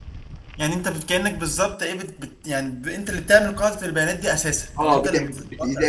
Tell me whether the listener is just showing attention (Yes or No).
No